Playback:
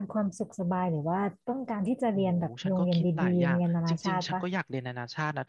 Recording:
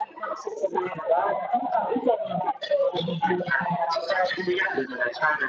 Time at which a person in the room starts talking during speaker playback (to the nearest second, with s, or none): none